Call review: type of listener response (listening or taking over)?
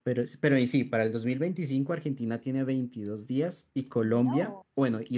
listening